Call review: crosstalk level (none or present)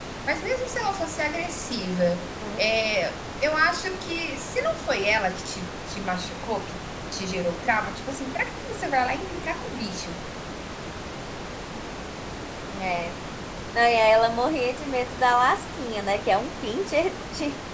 none